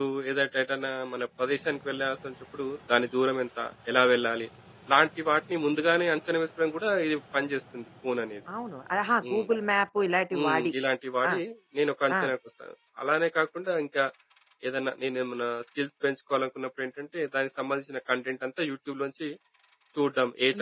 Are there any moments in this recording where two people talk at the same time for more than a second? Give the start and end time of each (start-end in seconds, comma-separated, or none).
none